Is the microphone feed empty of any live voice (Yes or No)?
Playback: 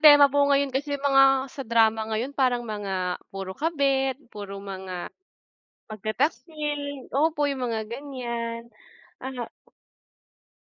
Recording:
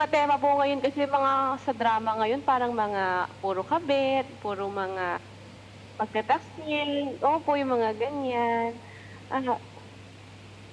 Yes